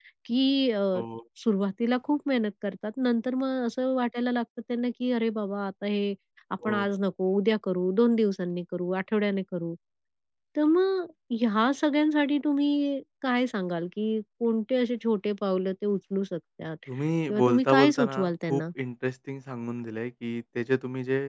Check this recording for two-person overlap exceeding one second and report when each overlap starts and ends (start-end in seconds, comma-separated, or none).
17.3-18.6